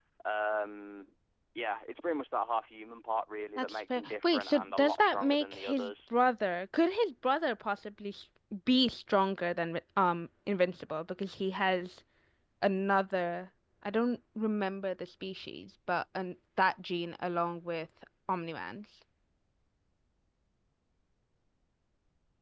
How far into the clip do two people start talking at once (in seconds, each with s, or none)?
3.6 s